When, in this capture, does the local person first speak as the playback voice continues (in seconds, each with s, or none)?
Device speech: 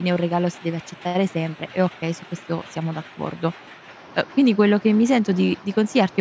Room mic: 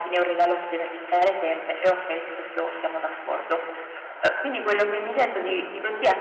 none